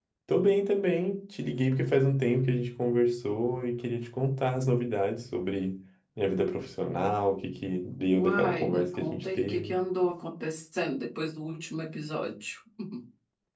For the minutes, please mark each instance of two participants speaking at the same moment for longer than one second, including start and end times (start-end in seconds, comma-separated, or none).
8.1-9.8